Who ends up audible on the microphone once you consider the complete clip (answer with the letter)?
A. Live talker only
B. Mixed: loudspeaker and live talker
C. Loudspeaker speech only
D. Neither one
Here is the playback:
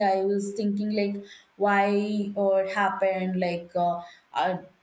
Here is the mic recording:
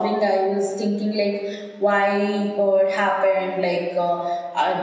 C